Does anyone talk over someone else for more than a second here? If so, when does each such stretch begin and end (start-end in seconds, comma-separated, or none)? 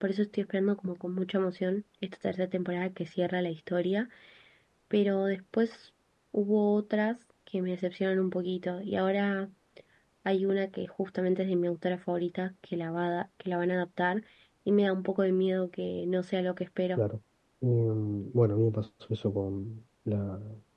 none